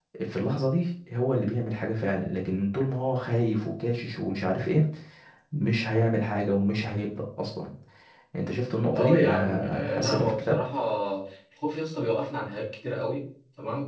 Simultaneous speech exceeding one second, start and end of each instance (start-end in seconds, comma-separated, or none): 8.9-10.6